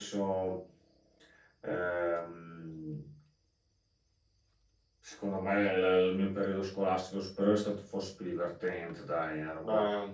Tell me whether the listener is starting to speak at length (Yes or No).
No